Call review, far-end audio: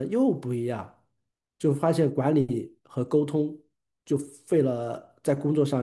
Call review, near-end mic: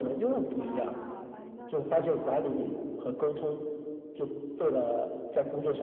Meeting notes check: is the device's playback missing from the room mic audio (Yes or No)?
No